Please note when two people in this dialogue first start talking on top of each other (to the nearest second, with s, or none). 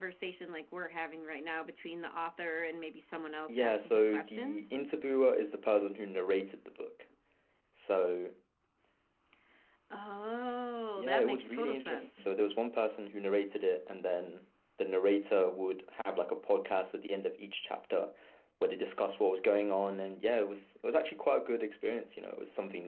3 s